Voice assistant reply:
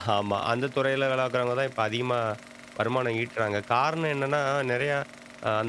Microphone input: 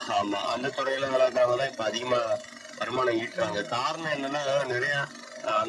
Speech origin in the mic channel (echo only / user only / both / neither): both